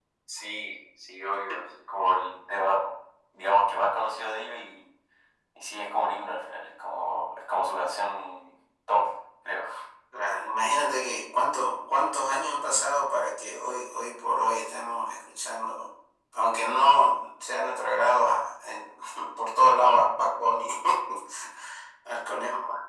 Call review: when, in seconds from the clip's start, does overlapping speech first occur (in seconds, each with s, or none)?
none